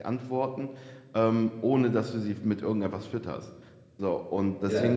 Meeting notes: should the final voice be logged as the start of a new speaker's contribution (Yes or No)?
No